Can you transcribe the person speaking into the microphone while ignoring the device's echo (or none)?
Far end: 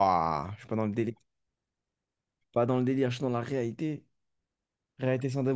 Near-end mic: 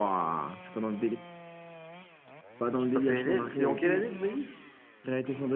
Non, C'est pas PNL. C'est en quelle année, tu m'as dit?